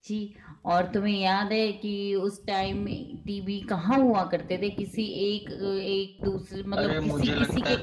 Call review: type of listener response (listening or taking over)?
taking over